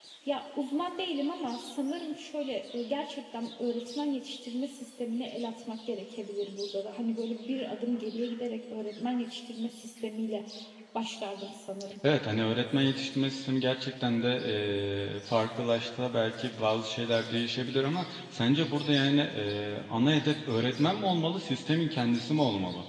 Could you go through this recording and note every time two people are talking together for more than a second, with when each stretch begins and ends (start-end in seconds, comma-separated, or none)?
none